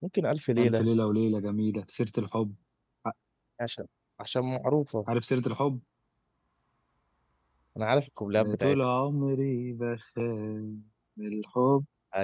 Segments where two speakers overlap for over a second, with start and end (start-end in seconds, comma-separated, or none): none